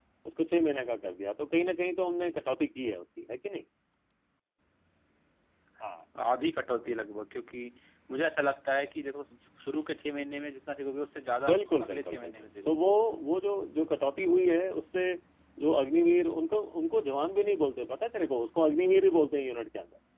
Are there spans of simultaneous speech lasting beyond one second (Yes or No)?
Yes